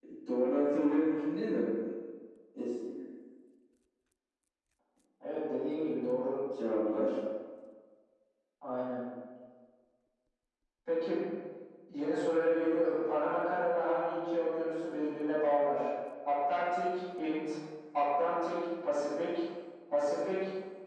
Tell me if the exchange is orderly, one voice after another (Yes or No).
Yes